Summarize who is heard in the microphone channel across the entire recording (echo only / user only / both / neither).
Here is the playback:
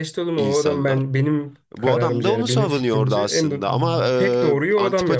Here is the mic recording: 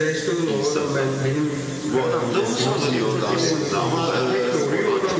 both